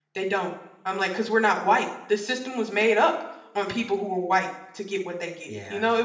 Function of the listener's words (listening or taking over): taking over